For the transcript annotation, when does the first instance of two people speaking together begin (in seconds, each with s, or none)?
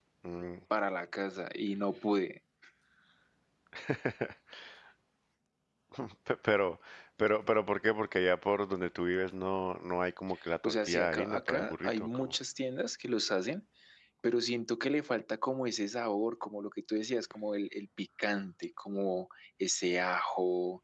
10.6 s